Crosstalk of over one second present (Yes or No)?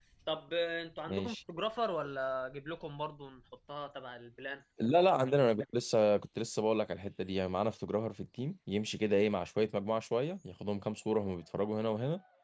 No